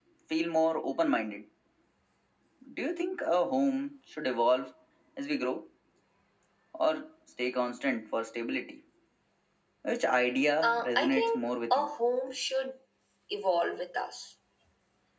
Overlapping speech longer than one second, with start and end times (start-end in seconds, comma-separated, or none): 10.6-11.9